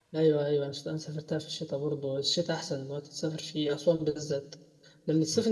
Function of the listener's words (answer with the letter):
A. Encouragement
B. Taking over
A